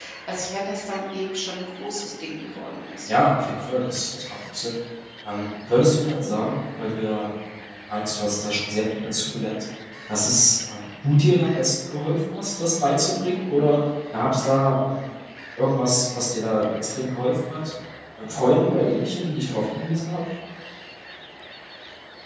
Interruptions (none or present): none